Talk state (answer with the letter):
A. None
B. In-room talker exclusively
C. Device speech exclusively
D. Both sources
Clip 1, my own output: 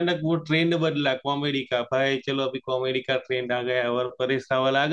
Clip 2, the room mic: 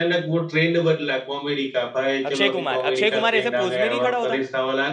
D